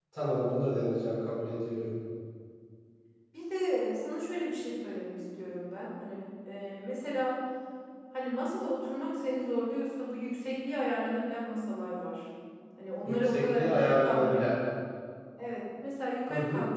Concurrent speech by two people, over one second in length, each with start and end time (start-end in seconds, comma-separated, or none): 13.1-14.5